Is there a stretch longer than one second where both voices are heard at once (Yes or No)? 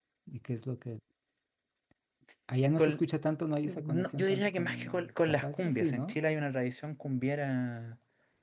Yes